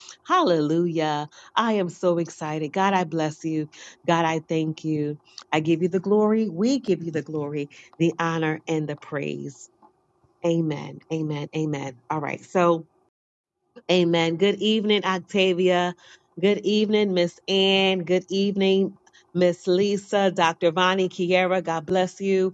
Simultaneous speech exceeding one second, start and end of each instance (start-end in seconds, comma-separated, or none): none